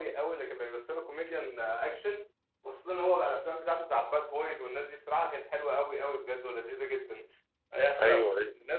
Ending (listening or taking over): listening